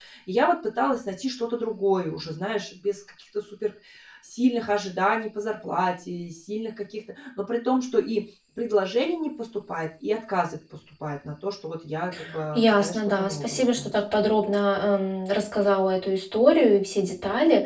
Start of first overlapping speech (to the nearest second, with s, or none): 13 s